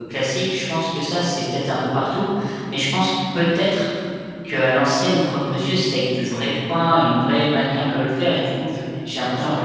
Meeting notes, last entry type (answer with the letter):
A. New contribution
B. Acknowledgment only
B